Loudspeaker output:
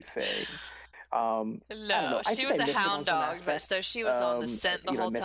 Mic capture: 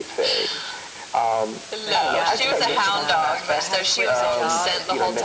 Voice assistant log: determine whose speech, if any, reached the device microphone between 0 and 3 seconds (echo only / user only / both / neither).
both